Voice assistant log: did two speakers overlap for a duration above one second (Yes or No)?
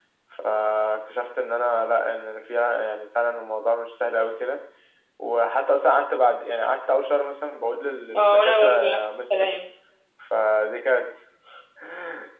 Yes